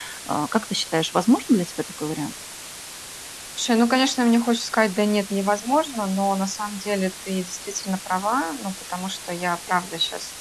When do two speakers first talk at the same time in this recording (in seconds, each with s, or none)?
none